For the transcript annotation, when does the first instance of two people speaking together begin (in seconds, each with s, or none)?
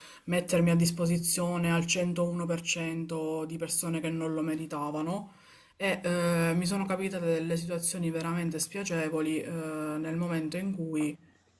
none